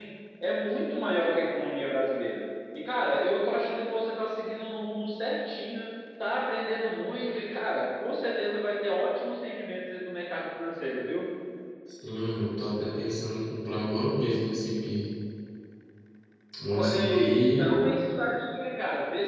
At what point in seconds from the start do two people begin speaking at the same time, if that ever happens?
17 s

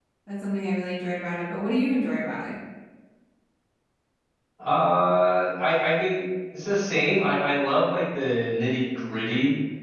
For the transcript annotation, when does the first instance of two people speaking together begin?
none

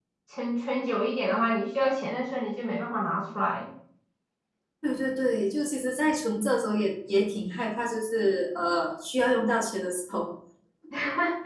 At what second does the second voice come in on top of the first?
none

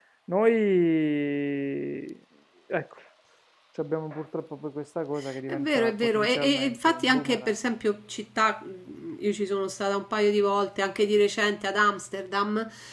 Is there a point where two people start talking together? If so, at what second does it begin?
5 s

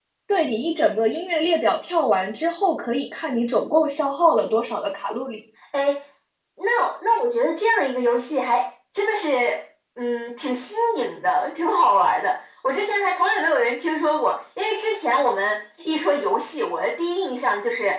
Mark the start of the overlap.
none

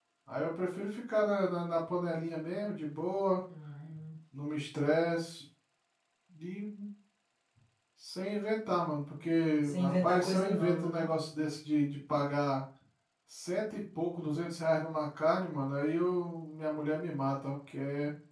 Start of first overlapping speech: 10 s

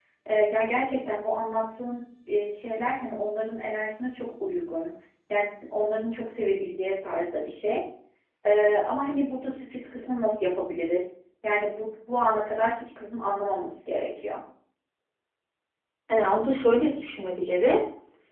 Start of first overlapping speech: none

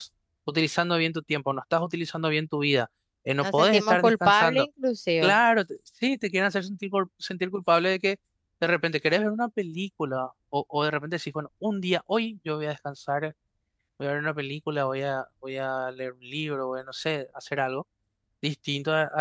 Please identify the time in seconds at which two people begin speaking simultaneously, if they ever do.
3 s

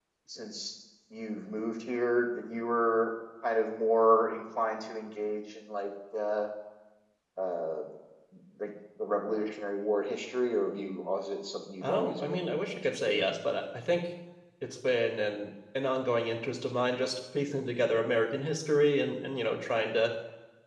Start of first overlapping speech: 12 s

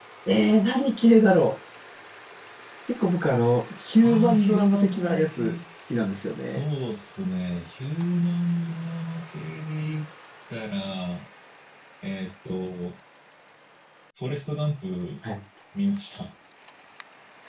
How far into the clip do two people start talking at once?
4 s

